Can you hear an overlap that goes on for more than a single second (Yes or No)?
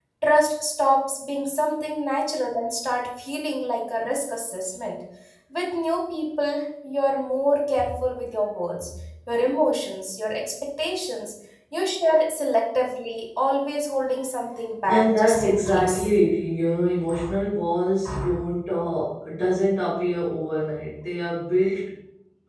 Yes